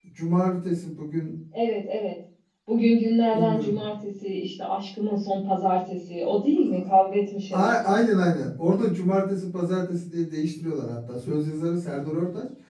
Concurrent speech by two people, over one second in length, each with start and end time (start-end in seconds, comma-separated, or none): none